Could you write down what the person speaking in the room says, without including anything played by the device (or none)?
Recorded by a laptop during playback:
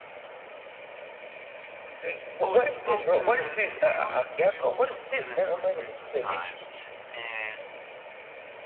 oh, it's so good. We al- we also do it as for Christmas time, and